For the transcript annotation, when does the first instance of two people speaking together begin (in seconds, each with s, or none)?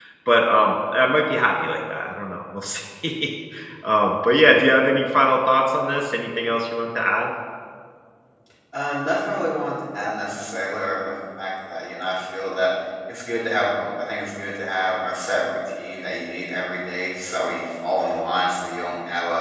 none